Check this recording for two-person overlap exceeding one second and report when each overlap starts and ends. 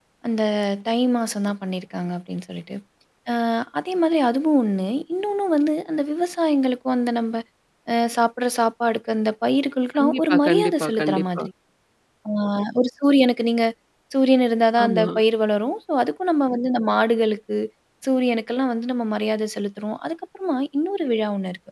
10.0-11.4

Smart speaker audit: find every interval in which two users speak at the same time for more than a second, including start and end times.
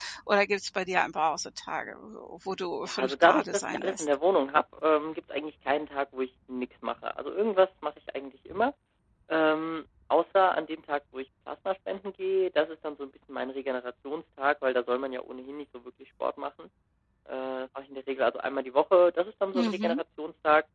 2.8-4.0

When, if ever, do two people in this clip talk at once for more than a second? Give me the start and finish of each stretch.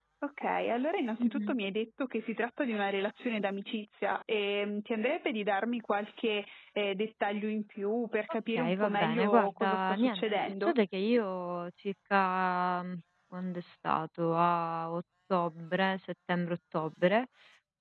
8.5-10.7

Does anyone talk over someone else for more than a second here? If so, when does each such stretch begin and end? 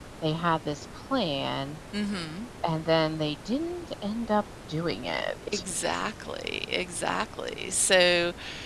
none

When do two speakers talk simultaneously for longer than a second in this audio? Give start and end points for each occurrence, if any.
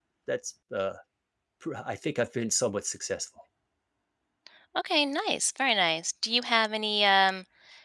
none

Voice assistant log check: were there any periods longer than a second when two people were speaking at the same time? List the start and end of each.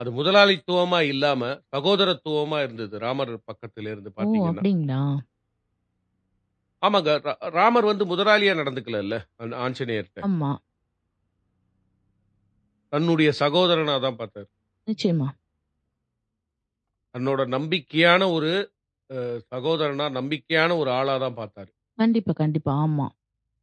none

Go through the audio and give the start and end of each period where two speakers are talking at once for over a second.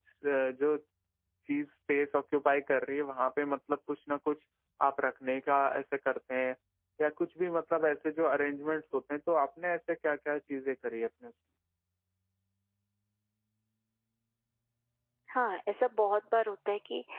none

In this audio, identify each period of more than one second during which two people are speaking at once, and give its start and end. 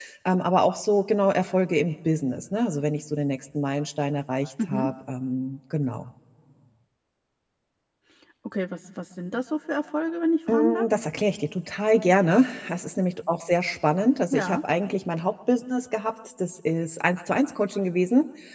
none

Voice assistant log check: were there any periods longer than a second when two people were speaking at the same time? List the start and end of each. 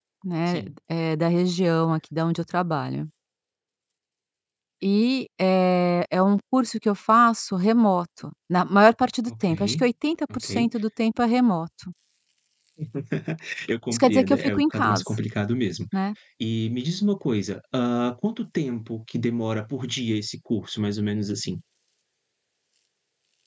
13.9-15.1

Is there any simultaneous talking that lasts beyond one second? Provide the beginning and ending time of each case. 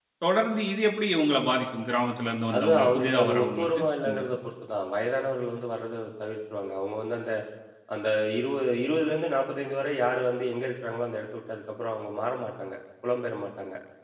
2.5-4.2

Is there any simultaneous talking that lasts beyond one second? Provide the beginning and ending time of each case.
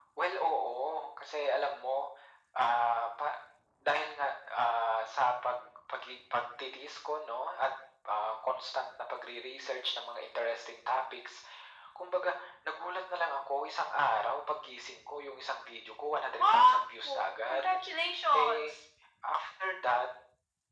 16.4-17.8

